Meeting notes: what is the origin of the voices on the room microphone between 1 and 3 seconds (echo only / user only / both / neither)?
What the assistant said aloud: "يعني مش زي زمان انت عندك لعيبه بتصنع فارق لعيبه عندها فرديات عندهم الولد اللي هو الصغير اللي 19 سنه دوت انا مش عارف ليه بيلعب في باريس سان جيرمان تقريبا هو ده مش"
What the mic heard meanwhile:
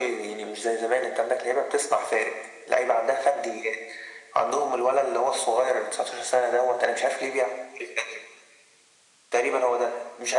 echo only